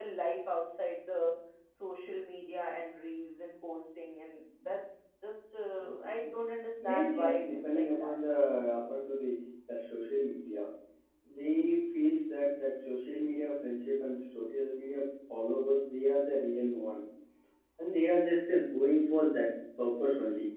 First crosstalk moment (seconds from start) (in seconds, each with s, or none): 6.8 s